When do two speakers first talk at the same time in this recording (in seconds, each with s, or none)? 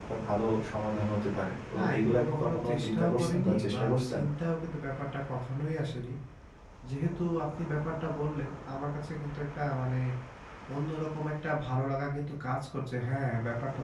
1.6 s